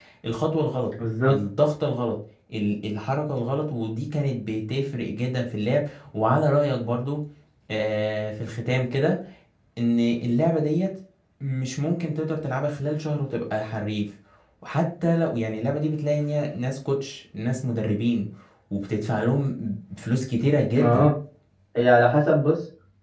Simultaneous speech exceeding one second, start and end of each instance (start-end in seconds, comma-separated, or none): none